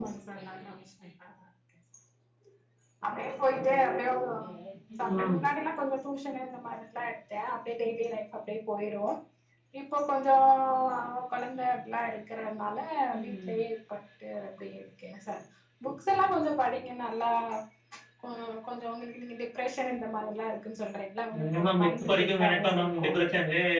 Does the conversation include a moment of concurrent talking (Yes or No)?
Yes